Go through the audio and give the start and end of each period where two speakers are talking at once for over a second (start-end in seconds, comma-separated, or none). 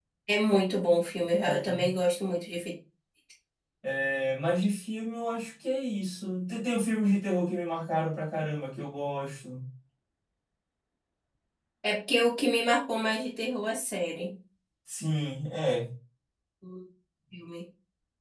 none